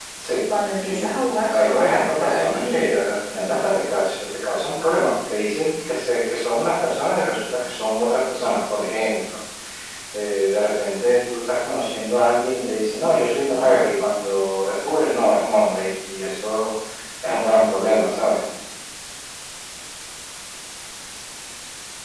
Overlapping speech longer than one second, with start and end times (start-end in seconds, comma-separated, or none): 0.9-2.9